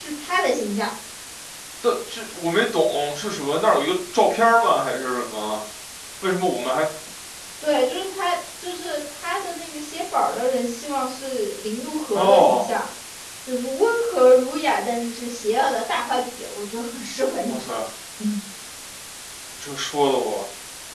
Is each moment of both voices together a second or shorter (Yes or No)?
Yes